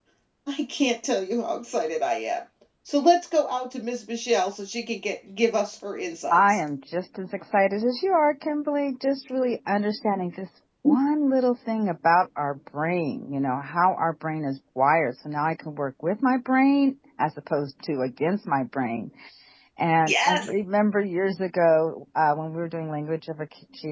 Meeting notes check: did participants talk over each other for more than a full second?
No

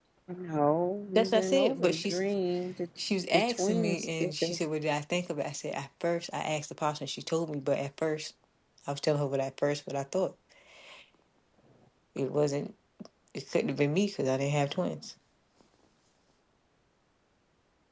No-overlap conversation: No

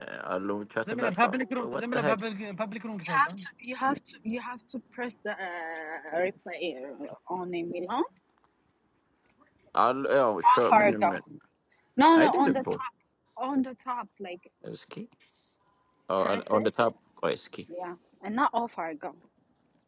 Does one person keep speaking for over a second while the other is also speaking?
Yes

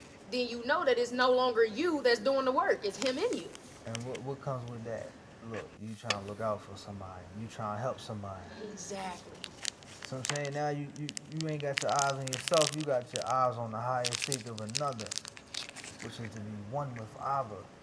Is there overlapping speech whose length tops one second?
No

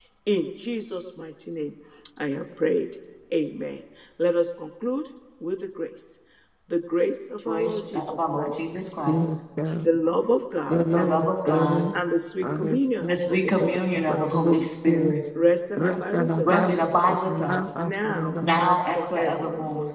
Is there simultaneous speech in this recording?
Yes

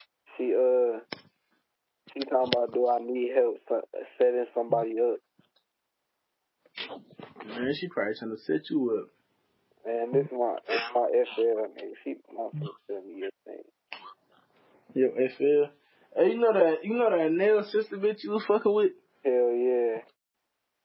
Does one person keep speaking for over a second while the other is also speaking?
No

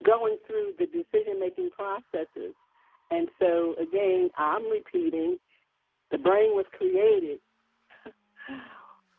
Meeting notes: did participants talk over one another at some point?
No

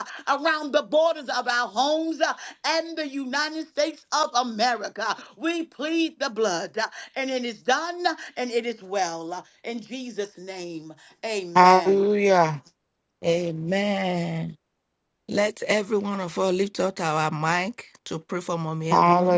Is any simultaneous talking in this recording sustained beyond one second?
No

